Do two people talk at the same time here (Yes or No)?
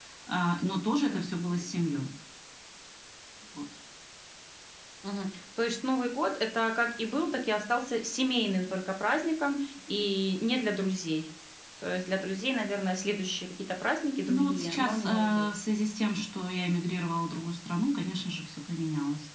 Yes